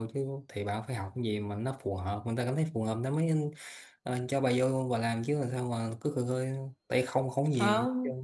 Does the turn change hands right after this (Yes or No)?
Yes